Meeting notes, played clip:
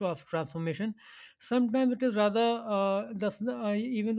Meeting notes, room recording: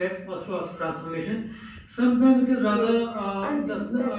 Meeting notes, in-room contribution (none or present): present